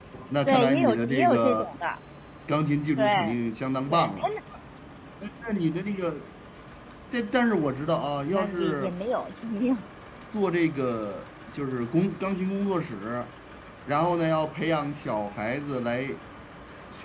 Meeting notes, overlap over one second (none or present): present